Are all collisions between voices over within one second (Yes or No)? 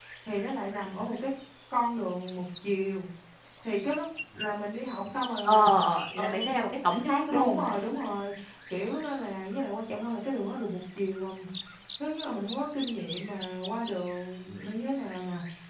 Yes